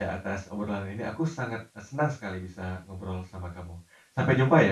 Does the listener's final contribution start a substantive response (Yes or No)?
Yes